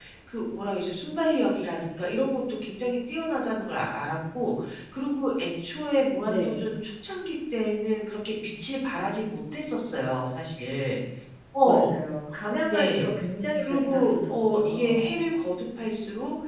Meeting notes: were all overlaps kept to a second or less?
No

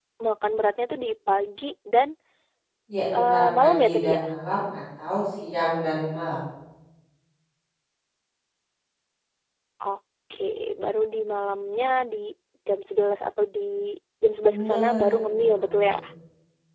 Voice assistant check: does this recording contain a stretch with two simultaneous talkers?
Yes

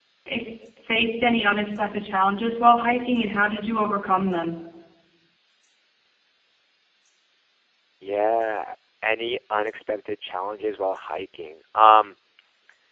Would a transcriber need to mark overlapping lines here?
No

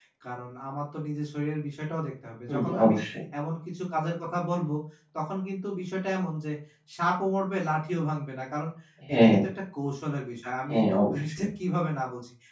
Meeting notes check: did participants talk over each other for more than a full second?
No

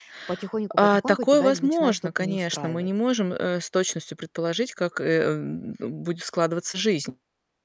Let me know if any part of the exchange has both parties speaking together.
Yes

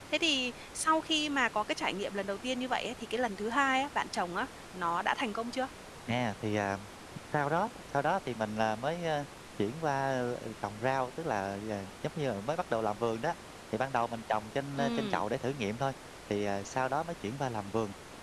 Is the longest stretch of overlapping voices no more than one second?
Yes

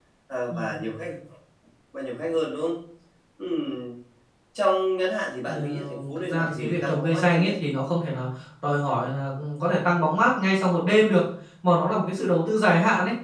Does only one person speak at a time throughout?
No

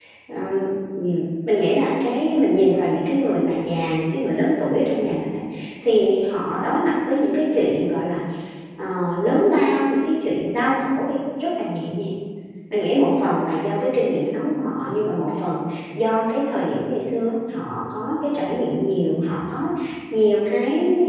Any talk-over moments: No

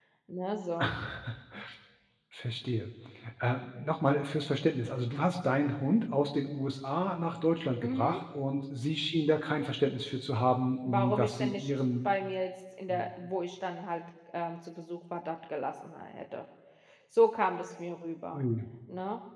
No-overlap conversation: No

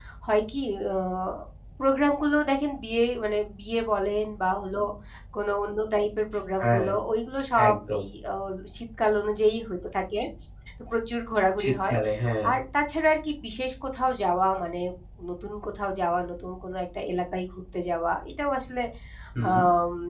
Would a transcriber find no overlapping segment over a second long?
Yes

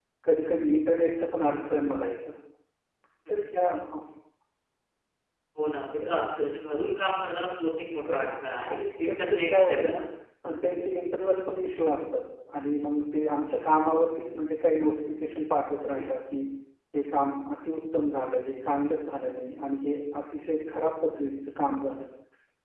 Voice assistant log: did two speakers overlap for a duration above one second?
Yes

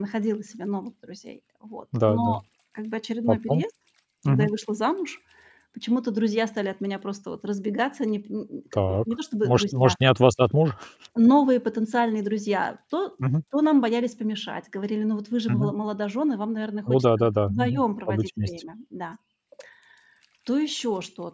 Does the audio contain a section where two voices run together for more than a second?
Yes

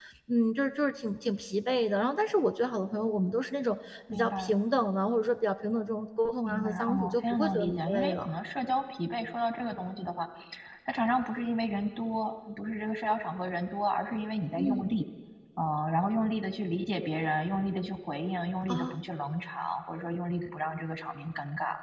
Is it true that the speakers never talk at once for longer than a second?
No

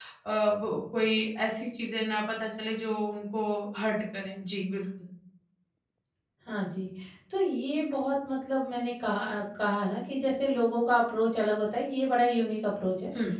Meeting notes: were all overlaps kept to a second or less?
Yes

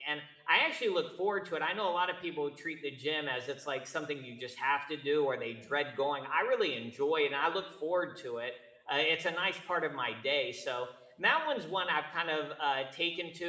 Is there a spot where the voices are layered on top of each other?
No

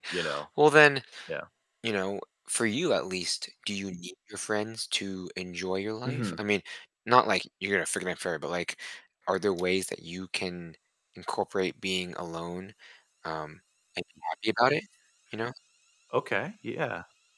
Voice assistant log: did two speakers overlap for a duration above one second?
No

